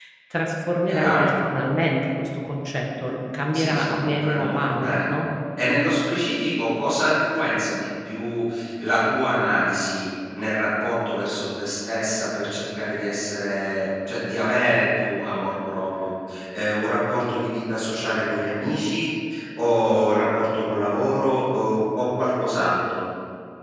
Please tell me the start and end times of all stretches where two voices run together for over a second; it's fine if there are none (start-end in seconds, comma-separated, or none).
3.5-4.9